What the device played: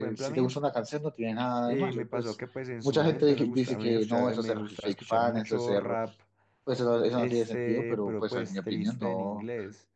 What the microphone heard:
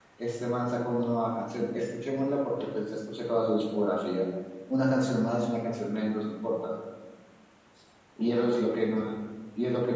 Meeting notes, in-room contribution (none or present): present